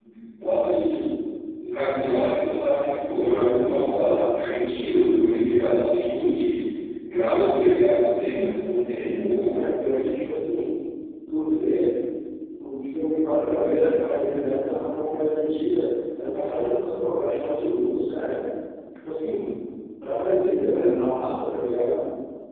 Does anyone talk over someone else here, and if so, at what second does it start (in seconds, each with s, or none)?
none